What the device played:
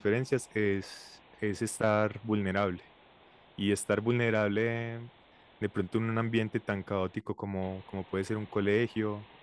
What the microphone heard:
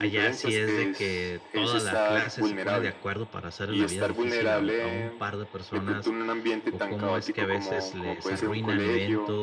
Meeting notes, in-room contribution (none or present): present